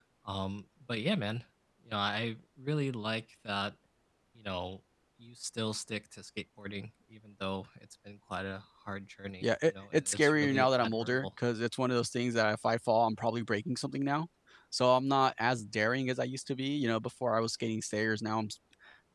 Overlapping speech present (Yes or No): Yes